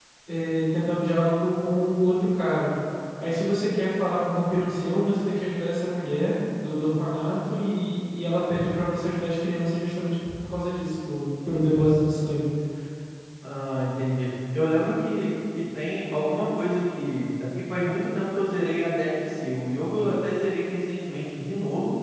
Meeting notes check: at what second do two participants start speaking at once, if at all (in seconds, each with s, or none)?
none